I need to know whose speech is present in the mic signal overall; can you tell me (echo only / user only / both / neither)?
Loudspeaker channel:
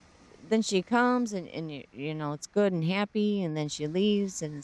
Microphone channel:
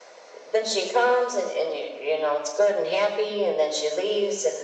echo only